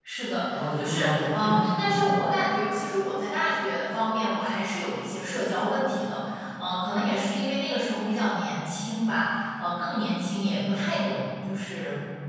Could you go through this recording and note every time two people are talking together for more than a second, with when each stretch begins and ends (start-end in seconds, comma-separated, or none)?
0.5-2.0